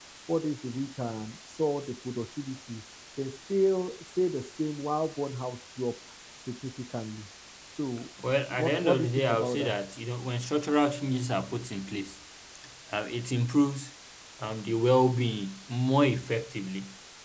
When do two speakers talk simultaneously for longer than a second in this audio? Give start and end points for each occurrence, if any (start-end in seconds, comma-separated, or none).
8.5-9.7